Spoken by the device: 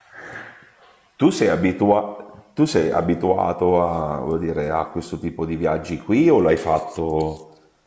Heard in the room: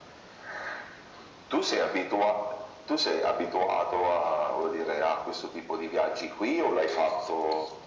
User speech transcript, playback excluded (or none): none